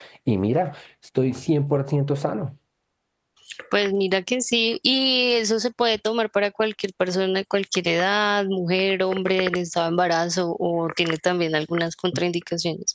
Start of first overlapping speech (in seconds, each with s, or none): none